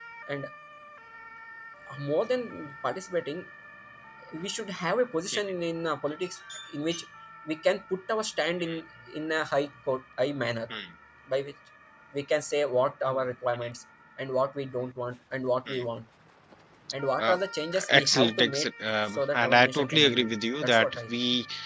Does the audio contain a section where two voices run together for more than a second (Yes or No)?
Yes